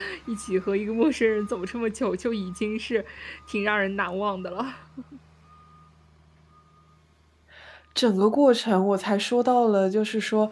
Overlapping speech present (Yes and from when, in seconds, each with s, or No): No